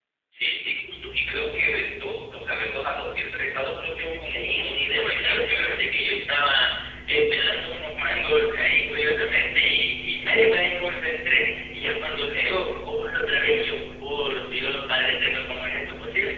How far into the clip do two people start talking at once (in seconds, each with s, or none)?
4.1 s